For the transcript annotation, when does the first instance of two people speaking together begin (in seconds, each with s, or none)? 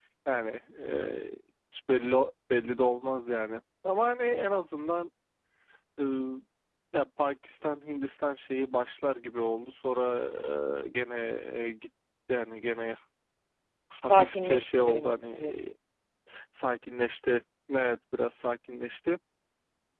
14.1 s